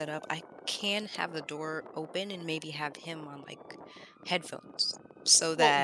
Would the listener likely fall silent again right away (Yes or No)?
No